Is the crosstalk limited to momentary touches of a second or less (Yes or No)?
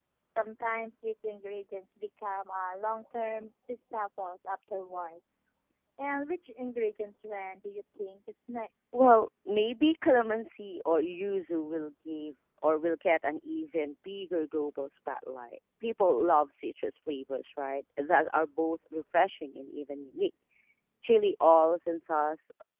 Yes